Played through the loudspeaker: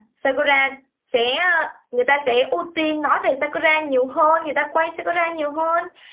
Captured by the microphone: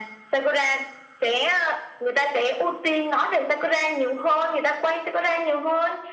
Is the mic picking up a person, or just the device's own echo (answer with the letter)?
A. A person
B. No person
B